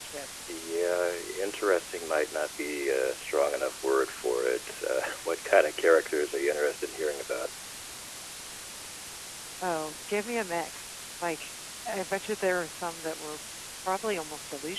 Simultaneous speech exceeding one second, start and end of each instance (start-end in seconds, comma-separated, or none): none